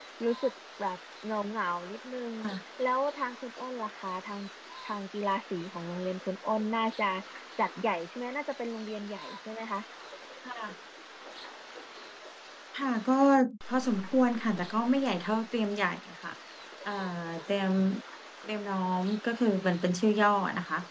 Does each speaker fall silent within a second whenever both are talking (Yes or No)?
Yes